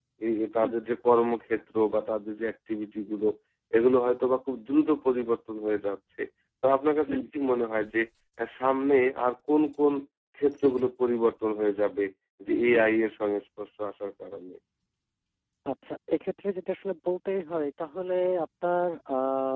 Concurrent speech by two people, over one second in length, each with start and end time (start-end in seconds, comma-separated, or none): none